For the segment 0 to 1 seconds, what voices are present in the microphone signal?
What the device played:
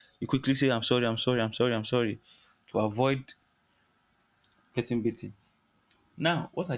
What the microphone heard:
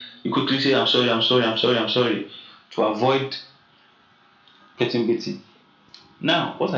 echo only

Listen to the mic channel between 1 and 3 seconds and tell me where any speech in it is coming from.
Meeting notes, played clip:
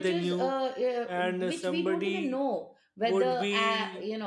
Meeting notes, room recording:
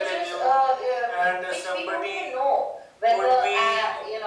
echo only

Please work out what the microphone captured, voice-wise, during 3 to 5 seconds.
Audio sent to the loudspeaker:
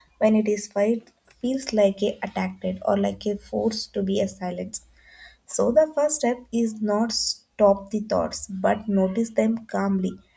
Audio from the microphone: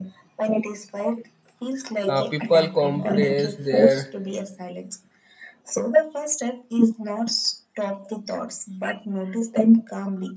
both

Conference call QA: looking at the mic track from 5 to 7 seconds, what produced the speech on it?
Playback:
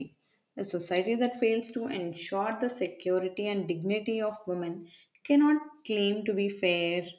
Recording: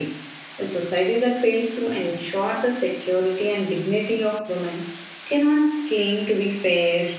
echo only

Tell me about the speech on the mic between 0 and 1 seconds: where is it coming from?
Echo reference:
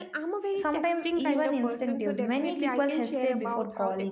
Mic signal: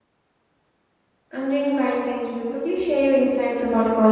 neither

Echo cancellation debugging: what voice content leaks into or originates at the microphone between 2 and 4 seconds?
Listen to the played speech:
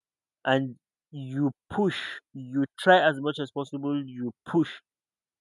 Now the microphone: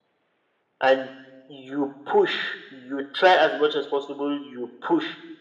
echo only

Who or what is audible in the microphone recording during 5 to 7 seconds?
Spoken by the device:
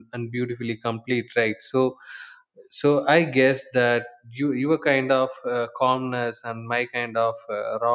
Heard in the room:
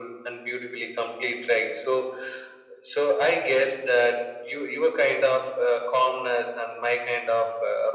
echo only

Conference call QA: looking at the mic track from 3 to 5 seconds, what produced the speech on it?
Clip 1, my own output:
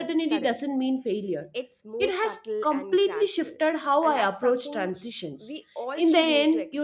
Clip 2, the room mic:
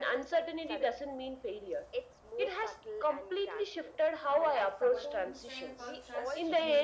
both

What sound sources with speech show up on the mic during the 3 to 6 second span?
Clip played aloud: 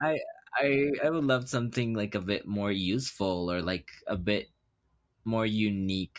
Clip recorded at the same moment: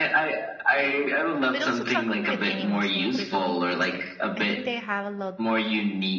both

